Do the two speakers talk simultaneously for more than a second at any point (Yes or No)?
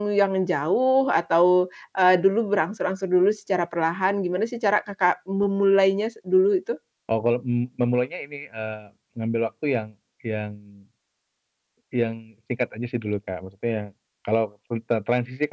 No